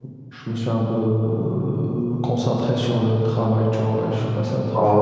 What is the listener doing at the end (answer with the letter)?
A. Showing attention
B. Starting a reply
B